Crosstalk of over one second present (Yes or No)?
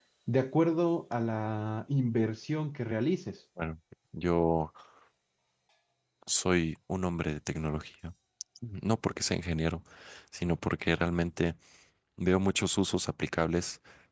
No